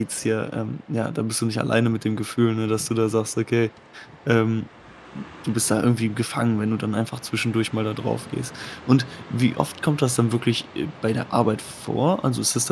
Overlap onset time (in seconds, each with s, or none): none